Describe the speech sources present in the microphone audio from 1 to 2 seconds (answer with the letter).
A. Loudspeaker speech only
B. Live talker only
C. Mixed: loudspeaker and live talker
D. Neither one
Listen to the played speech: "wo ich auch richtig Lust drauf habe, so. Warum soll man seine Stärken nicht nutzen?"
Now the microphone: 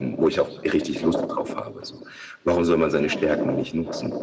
A